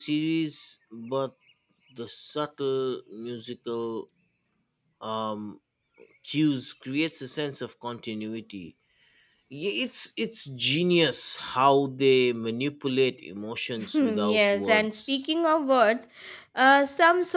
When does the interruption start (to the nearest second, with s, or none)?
14 s